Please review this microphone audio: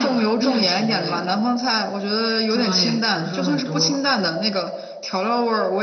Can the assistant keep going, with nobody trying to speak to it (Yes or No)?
Yes